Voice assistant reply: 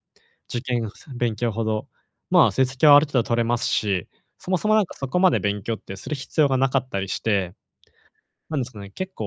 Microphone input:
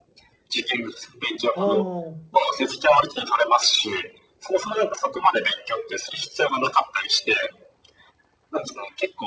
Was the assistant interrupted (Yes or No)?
Yes